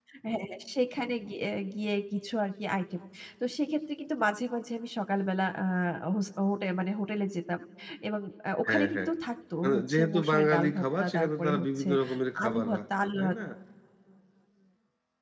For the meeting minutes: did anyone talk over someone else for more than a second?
Yes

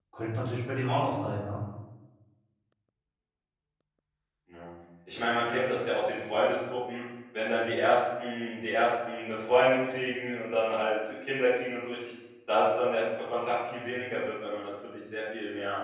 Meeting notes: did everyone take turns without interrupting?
Yes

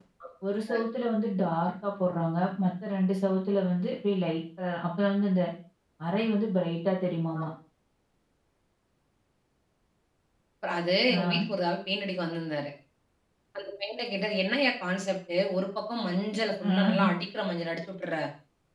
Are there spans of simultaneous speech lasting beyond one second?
No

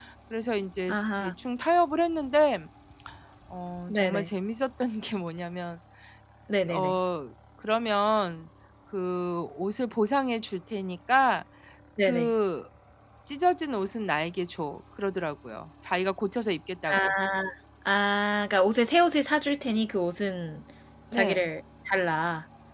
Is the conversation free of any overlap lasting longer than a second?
Yes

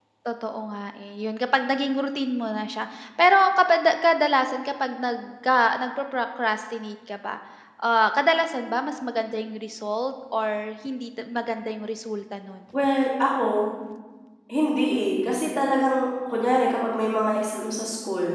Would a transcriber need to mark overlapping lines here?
No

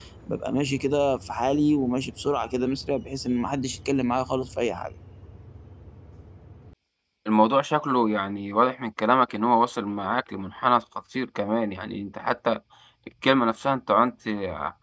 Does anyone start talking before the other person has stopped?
No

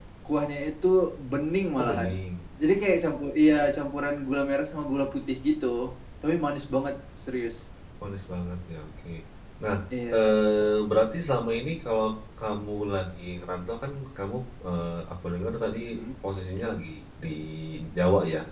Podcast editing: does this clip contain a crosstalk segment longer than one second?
No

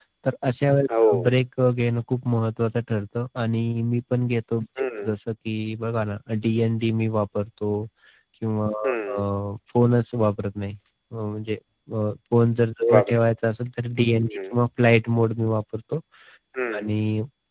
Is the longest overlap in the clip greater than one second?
No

